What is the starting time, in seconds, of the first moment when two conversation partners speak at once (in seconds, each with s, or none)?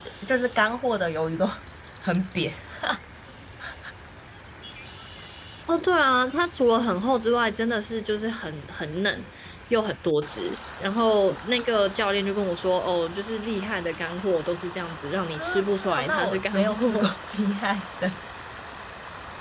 15.4 s